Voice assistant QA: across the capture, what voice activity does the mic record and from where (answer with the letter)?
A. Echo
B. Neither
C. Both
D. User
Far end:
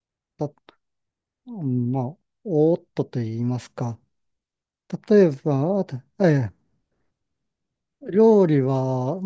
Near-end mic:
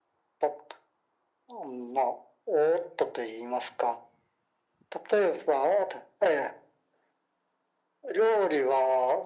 A